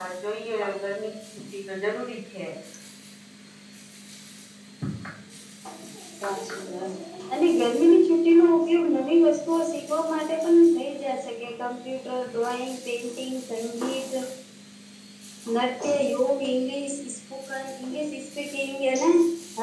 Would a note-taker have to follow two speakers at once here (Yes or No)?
No